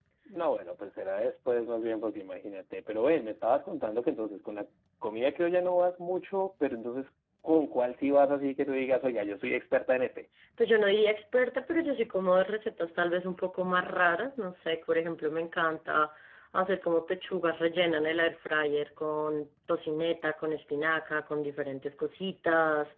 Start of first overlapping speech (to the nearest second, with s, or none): none